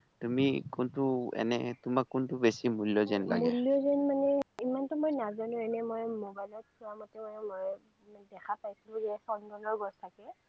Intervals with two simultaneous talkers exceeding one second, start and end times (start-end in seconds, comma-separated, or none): none